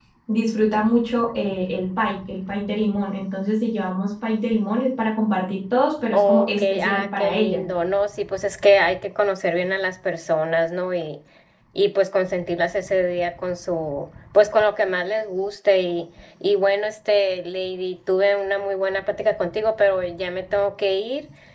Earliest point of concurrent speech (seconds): 6.1 s

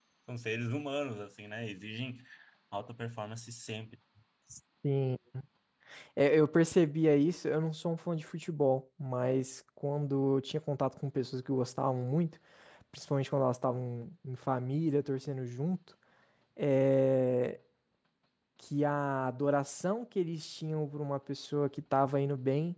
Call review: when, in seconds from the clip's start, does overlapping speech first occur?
none

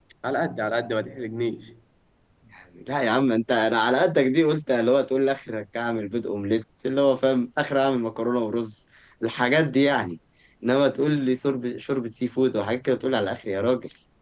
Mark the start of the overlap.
none

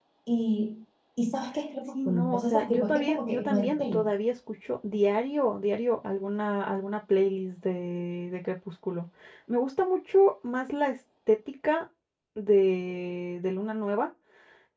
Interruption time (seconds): 1.9 s

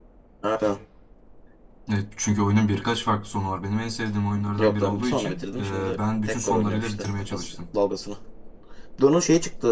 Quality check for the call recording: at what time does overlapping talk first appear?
4.6 s

